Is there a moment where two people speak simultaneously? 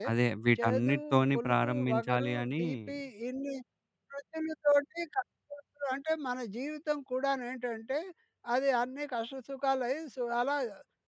Yes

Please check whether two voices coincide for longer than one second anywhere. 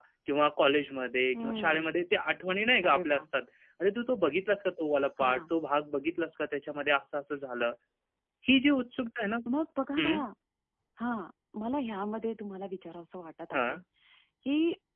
No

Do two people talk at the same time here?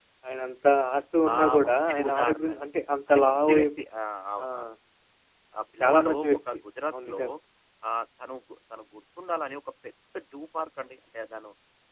Yes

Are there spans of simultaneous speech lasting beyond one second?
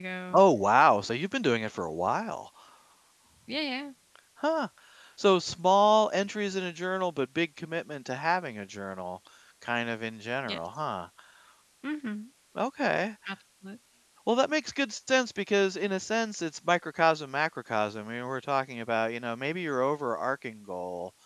No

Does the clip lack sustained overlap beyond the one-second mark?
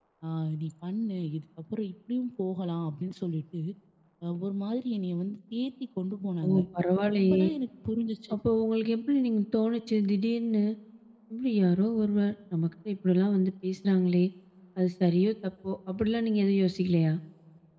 Yes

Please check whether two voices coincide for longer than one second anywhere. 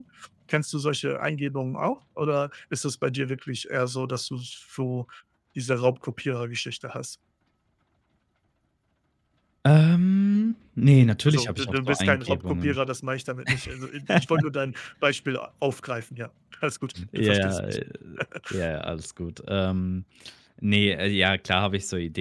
Yes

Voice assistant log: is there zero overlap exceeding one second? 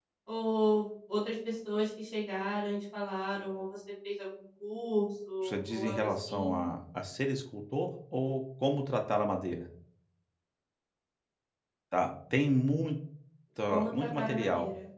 No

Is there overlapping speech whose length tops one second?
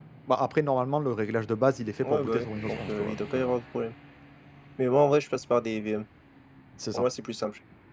Yes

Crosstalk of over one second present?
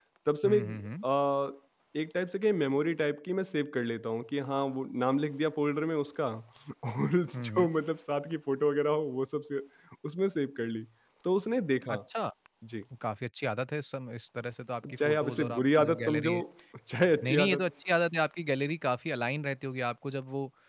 Yes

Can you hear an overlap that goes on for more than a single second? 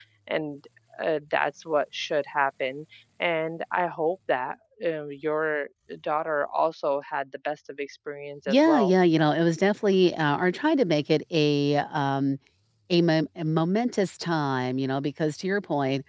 No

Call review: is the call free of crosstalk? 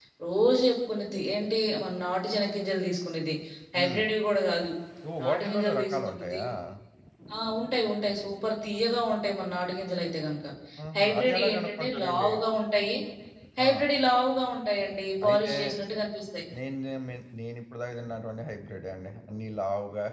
No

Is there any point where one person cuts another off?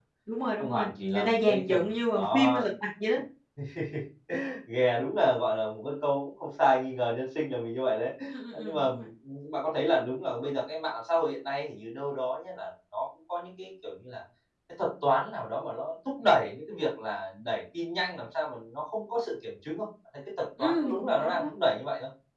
Yes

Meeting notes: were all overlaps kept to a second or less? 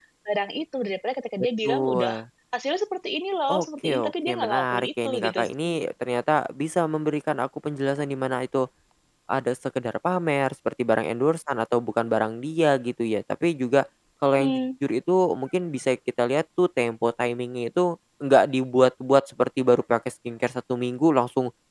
No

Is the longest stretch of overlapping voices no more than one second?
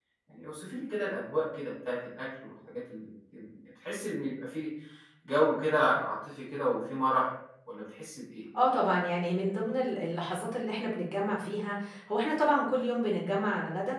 Yes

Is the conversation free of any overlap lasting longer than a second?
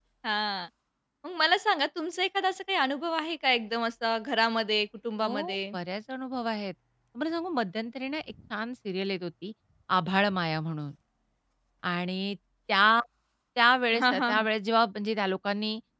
Yes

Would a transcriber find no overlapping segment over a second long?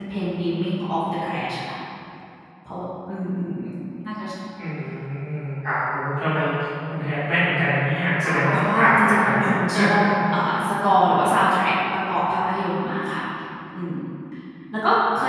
No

